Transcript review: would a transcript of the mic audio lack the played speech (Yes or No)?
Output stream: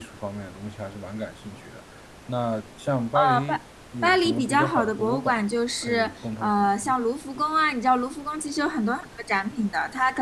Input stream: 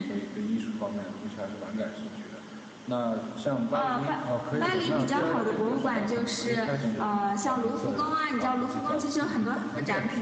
No